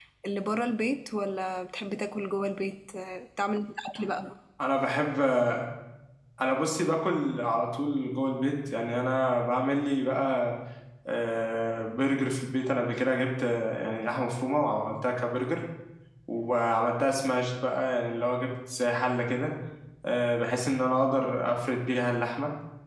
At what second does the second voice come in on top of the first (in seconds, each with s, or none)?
none